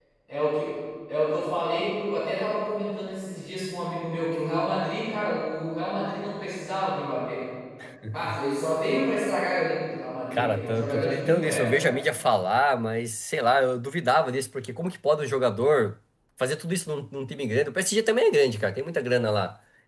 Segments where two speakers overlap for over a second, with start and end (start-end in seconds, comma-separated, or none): 10.3-12.0